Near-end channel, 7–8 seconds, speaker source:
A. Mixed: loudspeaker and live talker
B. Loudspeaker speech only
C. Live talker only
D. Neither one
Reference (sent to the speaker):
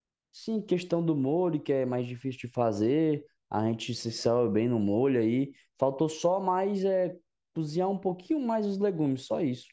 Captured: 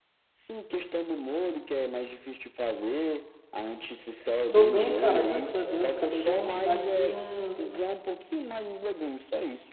A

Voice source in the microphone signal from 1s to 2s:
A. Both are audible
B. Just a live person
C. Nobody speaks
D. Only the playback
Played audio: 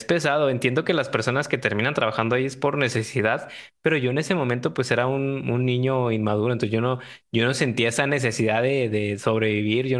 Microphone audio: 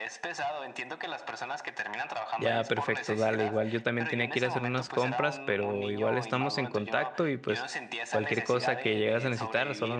D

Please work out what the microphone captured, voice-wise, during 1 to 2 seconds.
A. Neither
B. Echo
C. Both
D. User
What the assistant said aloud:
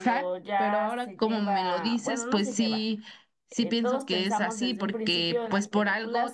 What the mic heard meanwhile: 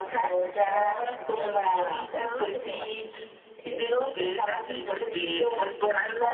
B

